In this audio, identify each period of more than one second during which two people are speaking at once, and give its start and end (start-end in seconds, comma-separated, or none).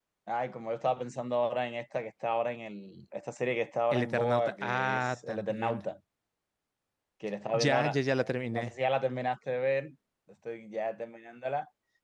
3.9-5.8